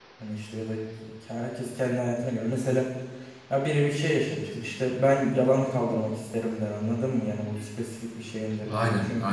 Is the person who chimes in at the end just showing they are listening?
Yes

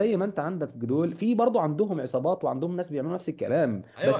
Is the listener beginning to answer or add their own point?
Yes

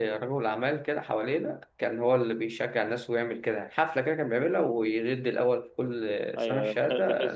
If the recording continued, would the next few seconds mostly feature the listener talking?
Yes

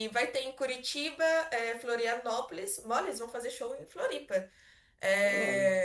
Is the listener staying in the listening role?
Yes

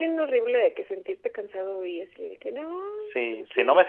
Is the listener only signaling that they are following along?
No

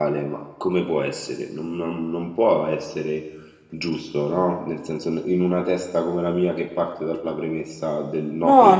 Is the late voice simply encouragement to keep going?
No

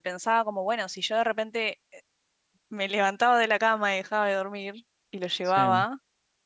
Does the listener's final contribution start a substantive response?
No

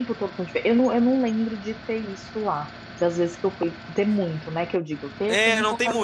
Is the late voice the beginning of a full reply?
Yes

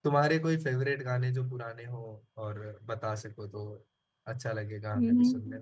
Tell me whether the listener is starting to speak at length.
Yes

